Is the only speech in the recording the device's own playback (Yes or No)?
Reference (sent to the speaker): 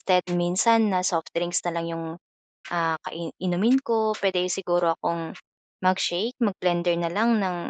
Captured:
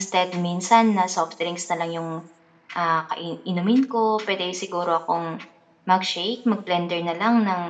Yes